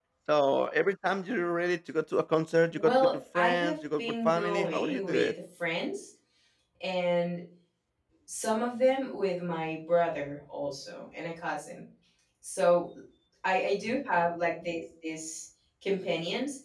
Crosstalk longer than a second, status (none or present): present